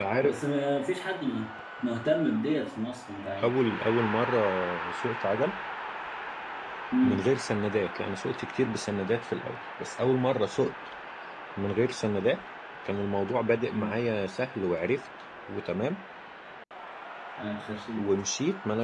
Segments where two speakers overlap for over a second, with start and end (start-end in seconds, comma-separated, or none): none